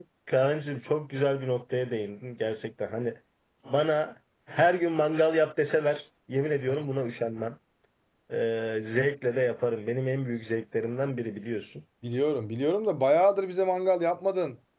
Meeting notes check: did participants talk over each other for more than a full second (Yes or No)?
No